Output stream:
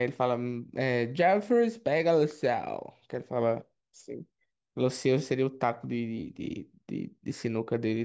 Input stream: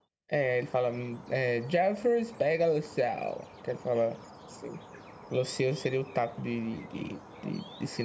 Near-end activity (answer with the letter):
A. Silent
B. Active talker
A